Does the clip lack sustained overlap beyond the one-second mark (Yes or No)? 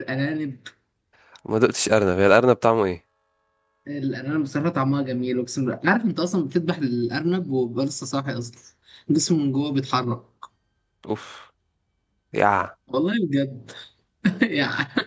Yes